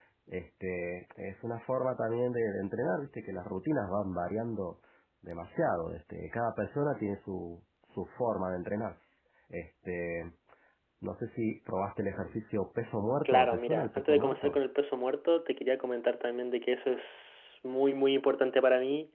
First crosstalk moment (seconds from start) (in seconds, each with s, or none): 13.2 s